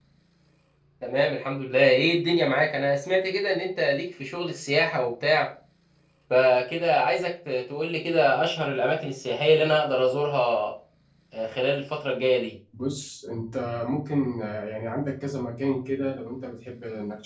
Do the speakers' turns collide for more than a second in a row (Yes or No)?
No